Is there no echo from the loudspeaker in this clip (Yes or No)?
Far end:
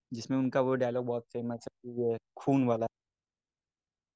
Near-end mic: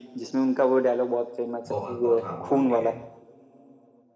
No